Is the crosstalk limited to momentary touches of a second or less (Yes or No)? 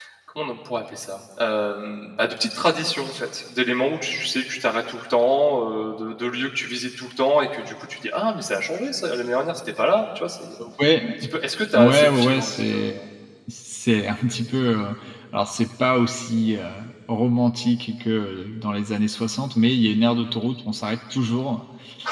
No